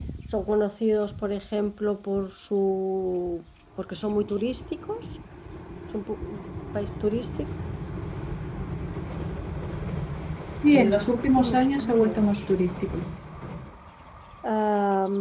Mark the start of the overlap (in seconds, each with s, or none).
10.7 s